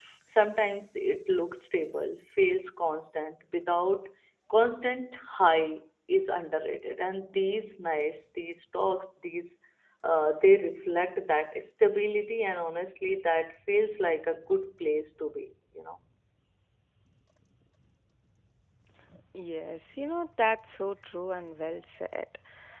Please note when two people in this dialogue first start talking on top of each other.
none

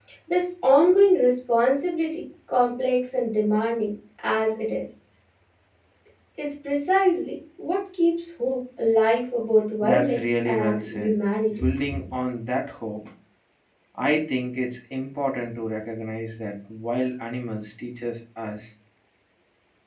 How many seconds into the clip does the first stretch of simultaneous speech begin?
9.8 s

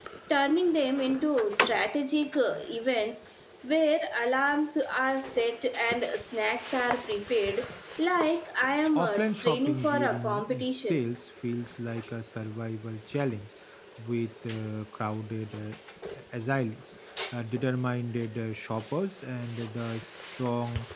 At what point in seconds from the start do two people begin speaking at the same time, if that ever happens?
8.9 s

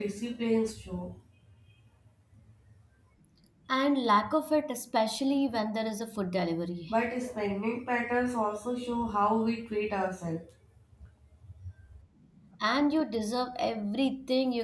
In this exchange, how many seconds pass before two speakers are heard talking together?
none

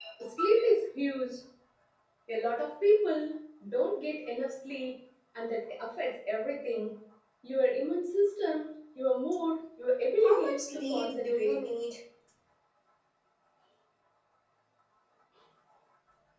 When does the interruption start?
10.2 s

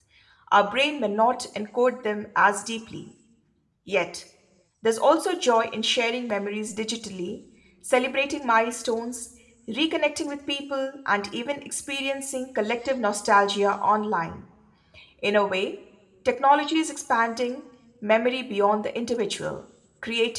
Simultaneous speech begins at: none

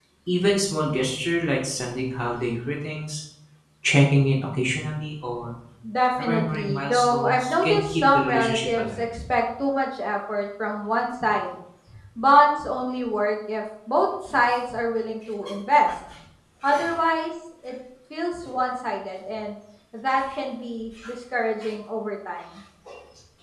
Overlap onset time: 6.2 s

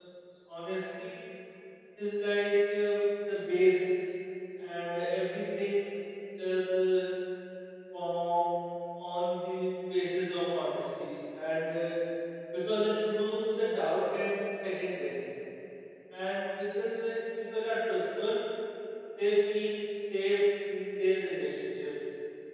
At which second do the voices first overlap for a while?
none

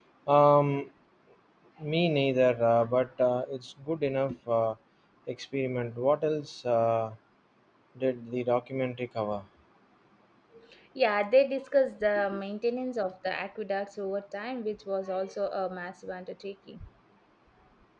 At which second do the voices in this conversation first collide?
none

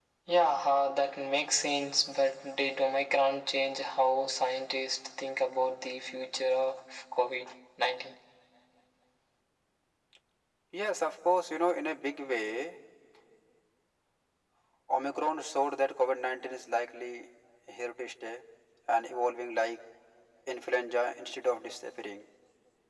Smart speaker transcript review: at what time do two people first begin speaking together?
none

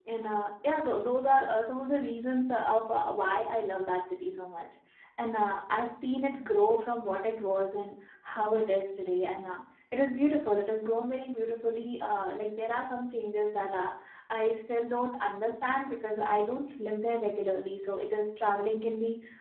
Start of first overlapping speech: none

